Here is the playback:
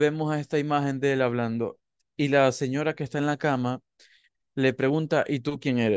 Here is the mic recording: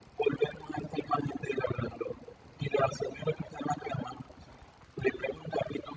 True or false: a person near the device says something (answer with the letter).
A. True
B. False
B